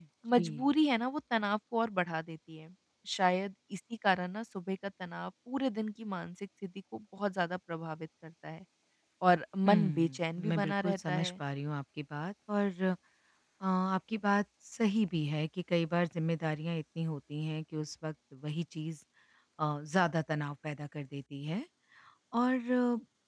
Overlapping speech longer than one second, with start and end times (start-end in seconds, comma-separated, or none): 9.7-11.4